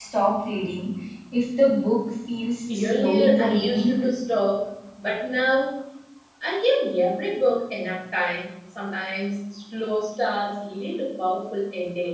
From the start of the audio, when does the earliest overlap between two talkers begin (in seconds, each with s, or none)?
2.7 s